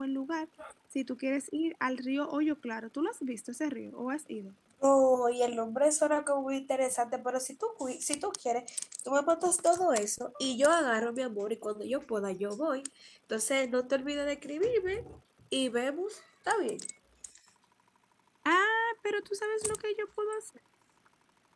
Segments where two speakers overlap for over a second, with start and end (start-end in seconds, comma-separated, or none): none